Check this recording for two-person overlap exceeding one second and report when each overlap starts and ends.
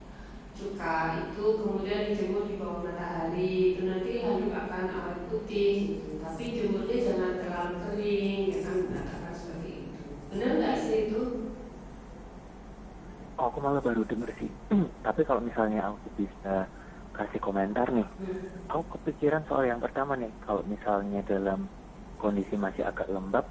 none

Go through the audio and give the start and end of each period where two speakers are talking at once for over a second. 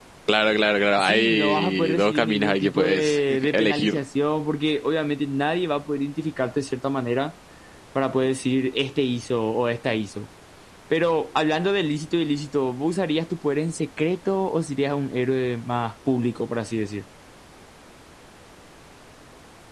1.0-4.0

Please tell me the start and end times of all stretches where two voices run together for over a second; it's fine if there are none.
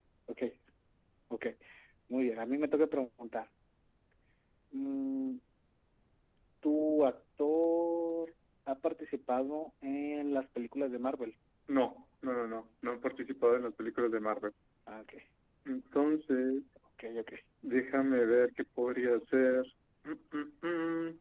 none

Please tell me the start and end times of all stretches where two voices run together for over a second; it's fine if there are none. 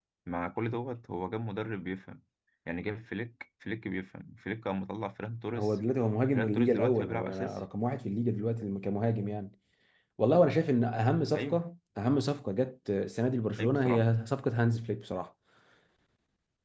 6.3-7.6

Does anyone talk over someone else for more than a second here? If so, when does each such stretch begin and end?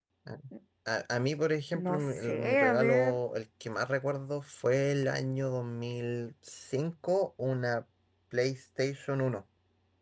1.7-3.2

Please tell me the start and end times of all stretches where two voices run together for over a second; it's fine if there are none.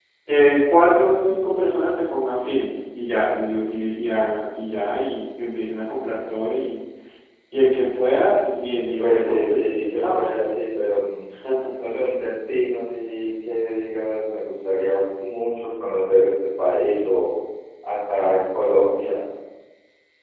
9.0-10.2

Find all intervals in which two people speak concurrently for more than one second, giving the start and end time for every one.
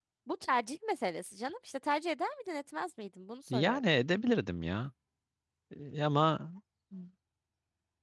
none

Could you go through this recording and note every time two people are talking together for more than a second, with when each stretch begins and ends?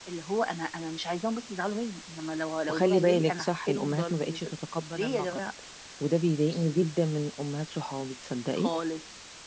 2.7-4.5

